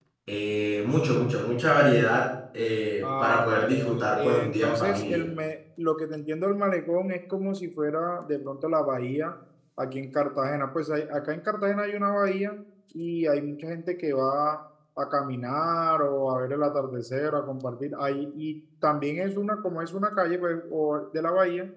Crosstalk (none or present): present